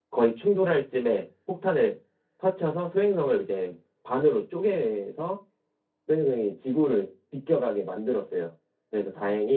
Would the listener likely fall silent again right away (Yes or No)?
Yes